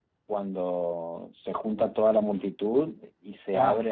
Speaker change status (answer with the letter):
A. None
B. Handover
A